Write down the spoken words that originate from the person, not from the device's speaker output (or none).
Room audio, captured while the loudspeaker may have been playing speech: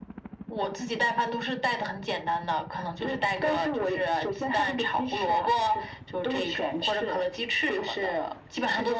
none